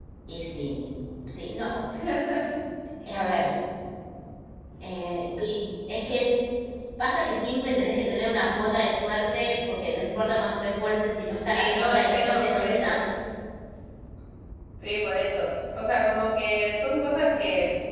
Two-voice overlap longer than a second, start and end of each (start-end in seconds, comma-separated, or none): 11.4-13.0